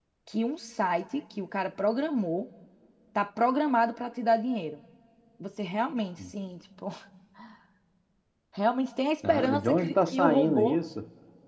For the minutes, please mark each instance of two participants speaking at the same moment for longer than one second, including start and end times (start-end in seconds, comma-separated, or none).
9.3-10.8